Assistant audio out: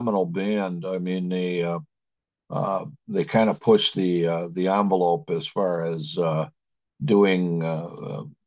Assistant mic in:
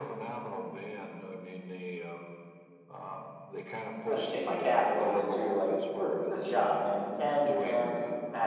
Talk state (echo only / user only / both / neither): both